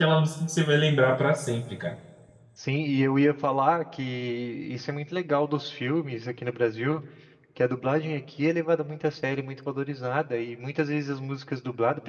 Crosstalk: none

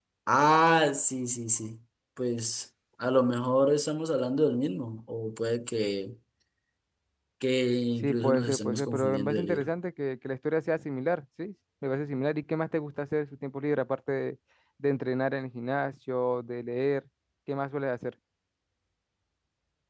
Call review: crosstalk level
present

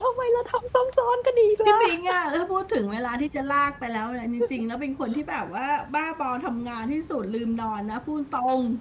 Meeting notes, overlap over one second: none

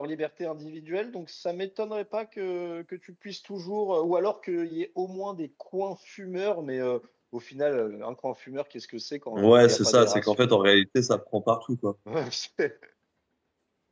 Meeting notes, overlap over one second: present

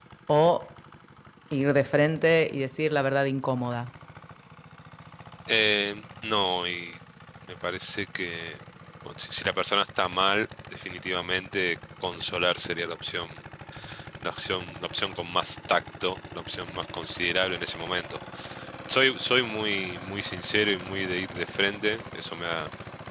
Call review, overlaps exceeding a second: none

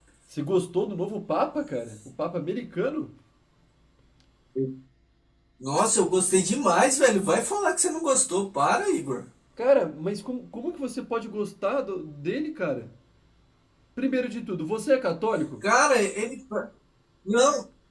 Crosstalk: none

